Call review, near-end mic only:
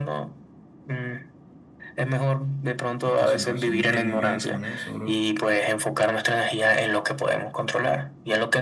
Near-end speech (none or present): present